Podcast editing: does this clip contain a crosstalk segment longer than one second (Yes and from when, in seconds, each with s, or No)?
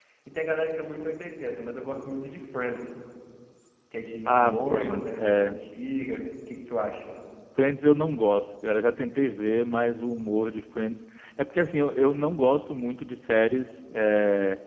Yes, from 4.3 s